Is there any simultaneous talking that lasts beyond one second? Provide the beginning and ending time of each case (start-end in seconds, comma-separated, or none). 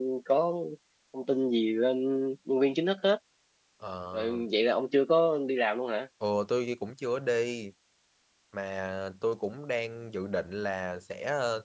none